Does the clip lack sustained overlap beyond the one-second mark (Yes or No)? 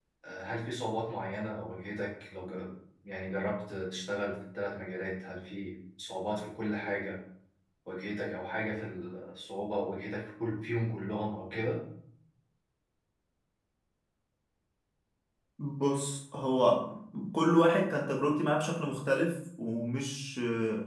Yes